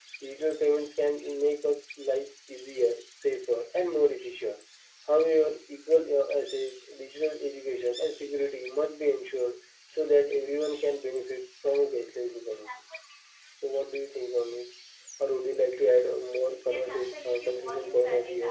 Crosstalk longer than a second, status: present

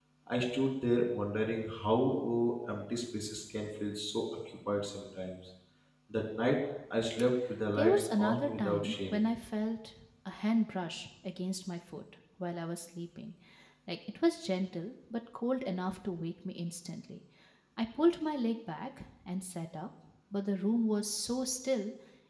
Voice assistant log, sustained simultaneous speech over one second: present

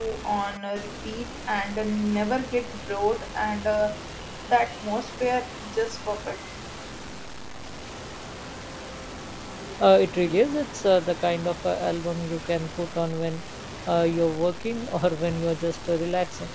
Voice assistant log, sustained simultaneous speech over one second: none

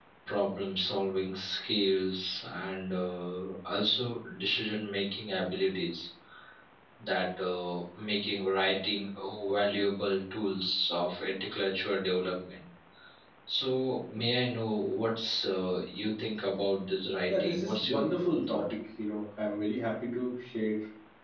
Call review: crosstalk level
present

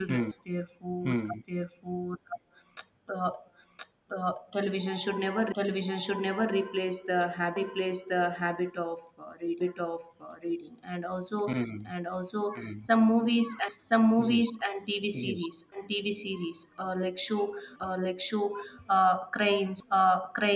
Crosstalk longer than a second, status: none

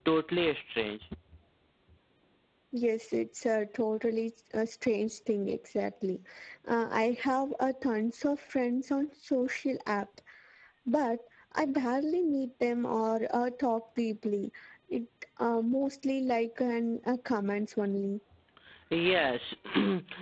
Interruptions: none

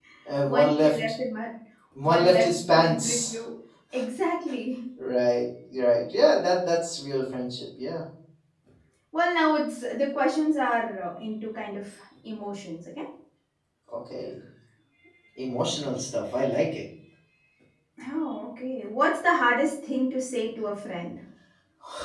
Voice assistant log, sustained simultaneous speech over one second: present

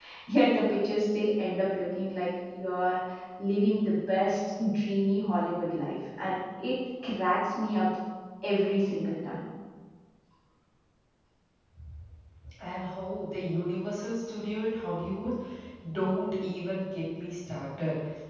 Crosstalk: none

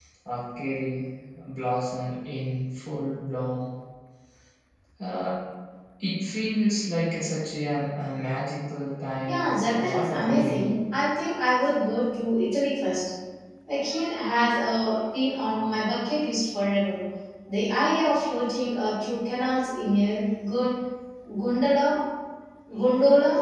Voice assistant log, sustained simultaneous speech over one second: present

